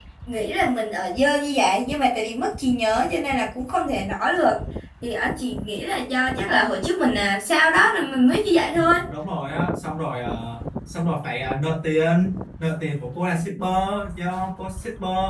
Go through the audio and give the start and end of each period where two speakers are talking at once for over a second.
none

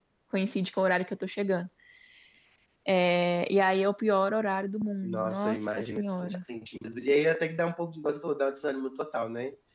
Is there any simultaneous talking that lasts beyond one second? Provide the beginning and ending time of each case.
5.0-6.4

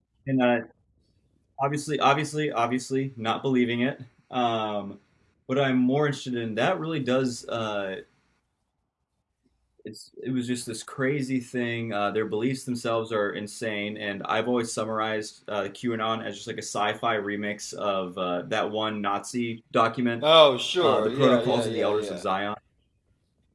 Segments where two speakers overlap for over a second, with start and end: 20.8-22.2

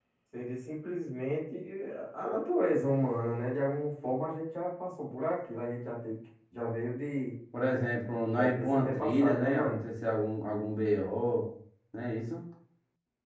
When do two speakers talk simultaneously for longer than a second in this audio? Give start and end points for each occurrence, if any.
8.3-9.8

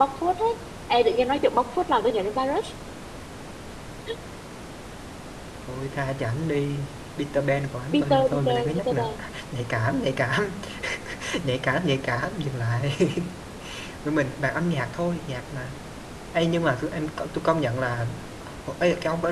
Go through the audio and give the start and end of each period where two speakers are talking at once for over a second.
7.9-9.1

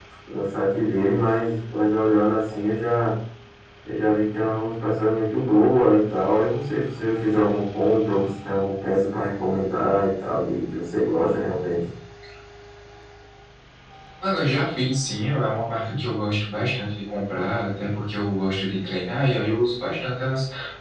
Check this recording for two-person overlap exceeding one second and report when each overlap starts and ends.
none

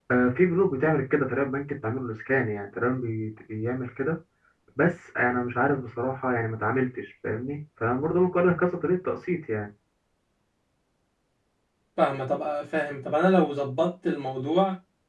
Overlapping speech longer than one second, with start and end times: none

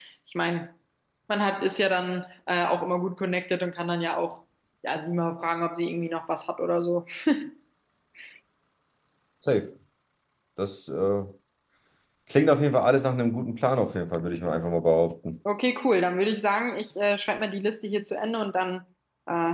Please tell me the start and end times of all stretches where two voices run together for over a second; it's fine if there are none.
none

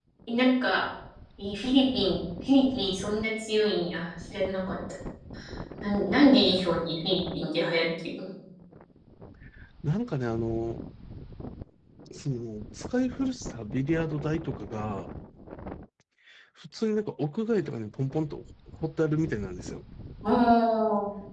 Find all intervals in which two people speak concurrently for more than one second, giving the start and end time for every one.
none

